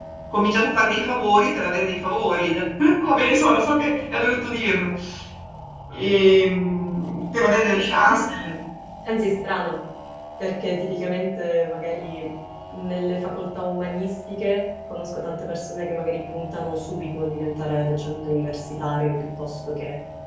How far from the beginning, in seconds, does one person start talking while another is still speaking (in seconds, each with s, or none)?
none